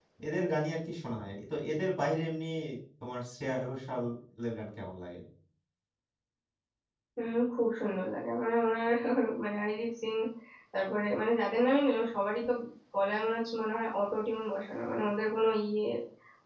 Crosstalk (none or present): none